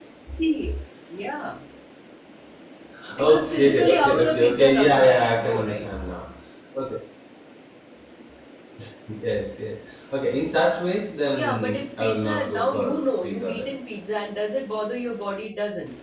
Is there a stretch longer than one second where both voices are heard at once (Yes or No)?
Yes